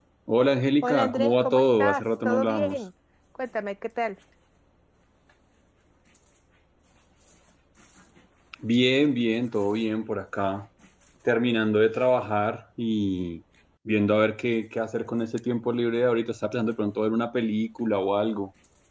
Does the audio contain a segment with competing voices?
Yes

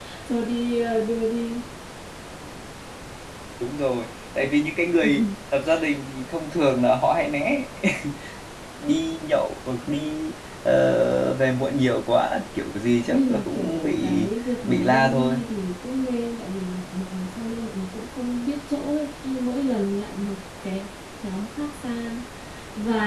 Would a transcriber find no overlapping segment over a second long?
No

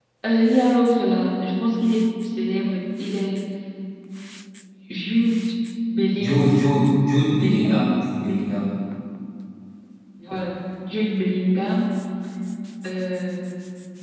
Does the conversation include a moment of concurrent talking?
Yes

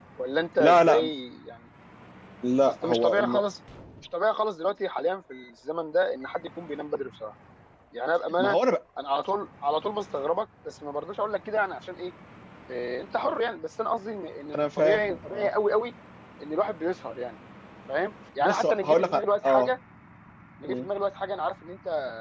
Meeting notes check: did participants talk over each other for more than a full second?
Yes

